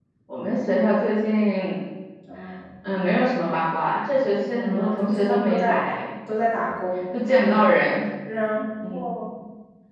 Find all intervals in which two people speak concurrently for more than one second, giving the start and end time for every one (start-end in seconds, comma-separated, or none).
4.5-6.0